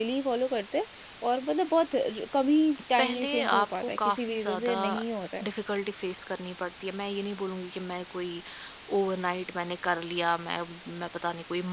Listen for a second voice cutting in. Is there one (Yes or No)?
Yes